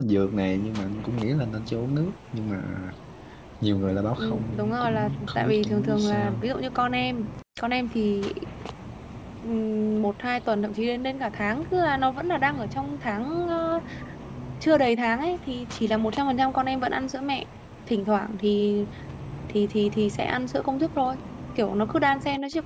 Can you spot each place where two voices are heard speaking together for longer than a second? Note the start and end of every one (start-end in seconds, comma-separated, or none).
4.2-6.5